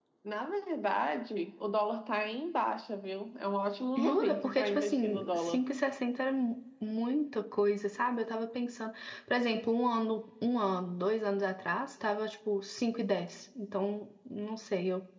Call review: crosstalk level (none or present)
present